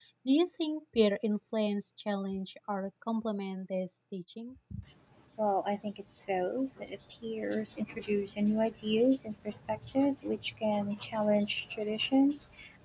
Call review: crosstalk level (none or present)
none